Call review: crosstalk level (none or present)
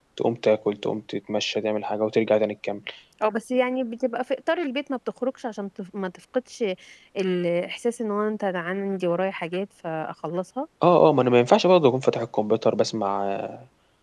none